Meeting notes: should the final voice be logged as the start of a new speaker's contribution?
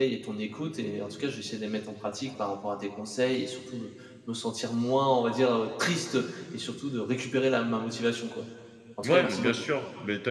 Yes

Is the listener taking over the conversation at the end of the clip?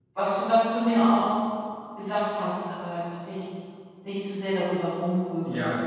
Yes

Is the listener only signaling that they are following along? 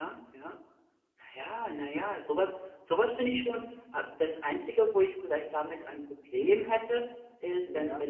Yes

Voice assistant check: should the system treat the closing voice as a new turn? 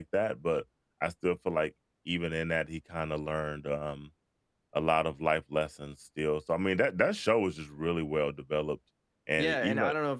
Yes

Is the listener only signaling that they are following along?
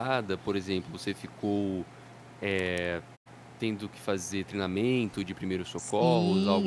No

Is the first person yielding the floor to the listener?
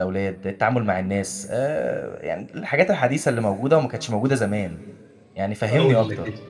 Yes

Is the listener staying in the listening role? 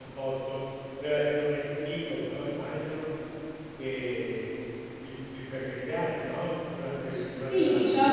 No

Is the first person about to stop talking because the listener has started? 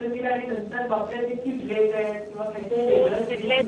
Yes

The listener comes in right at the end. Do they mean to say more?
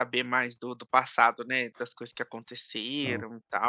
No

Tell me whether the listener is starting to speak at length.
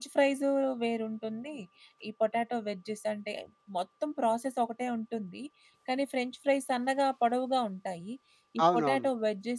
No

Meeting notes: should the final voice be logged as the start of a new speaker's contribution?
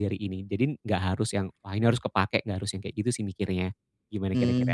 Yes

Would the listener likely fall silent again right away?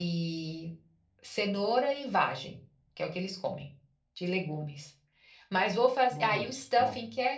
Yes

